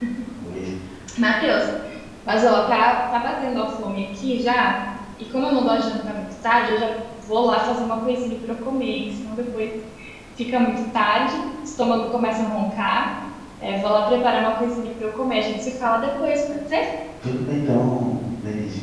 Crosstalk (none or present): none